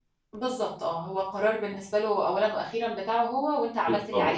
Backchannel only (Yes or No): No